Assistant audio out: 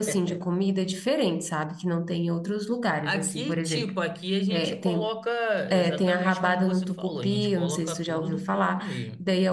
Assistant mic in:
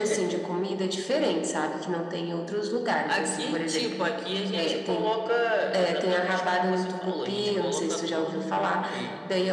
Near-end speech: none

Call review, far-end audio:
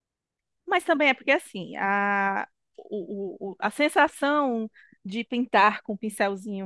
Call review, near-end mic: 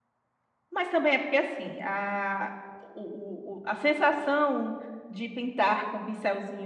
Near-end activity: none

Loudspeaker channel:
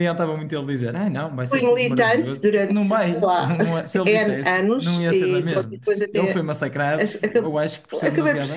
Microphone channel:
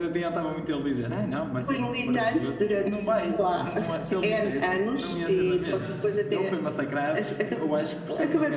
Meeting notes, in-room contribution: present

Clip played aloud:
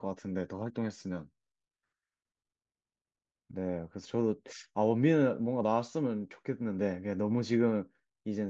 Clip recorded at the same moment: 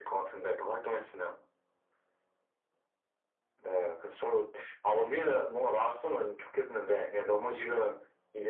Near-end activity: none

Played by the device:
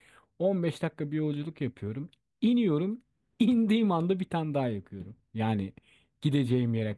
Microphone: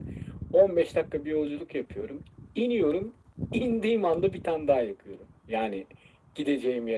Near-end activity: none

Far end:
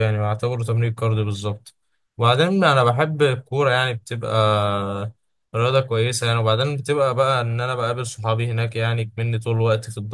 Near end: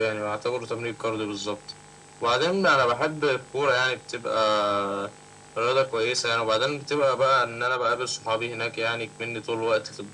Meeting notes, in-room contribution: none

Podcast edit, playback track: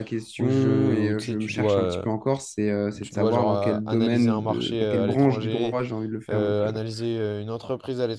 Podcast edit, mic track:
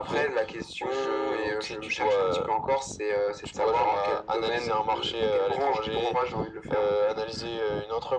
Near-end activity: none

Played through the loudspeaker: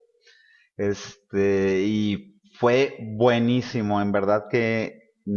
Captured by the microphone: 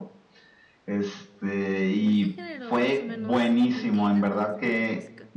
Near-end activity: present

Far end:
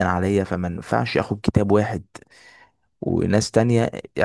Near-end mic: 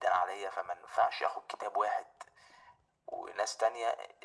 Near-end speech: none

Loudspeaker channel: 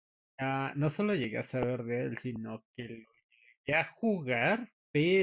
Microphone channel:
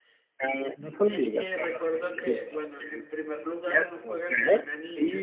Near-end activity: present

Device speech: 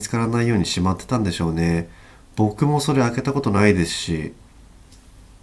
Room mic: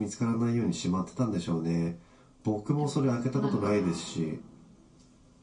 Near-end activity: present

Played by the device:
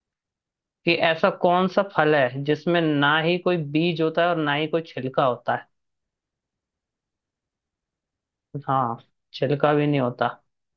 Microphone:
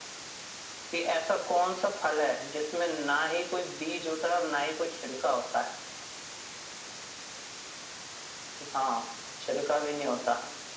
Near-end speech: none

